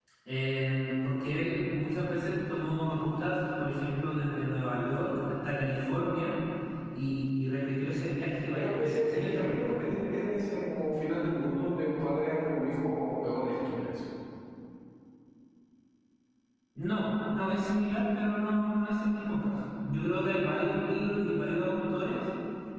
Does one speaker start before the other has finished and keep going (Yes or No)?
Yes